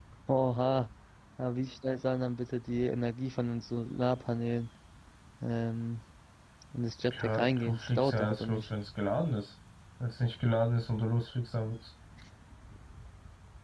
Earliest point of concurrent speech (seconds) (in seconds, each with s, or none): 7.1 s